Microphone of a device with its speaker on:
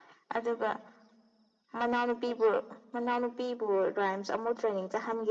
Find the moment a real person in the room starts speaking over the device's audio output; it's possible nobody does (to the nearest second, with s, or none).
none